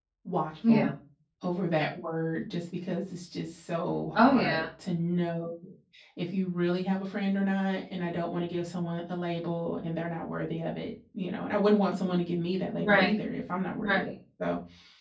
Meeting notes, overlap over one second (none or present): none